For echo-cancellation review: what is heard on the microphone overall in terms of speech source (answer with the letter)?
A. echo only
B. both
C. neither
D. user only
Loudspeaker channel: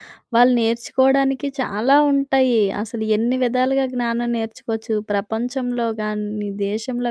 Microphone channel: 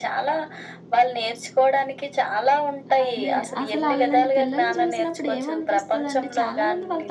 B